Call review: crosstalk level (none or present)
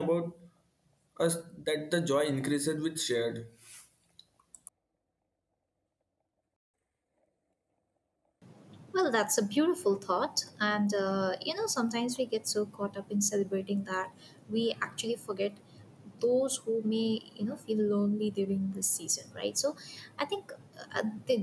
none